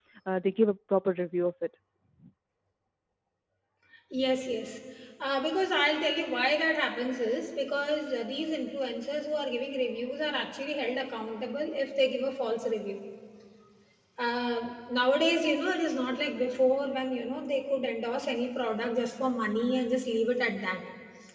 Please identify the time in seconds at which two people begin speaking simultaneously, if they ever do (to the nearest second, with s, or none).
none